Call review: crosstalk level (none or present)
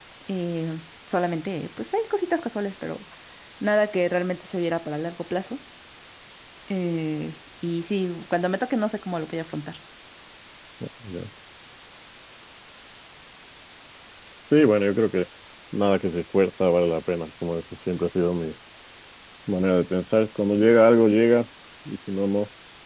none